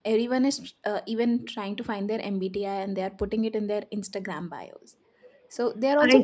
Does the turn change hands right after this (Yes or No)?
No